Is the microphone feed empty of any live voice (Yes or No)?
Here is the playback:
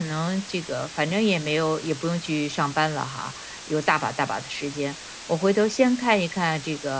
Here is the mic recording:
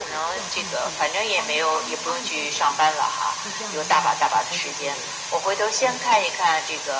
No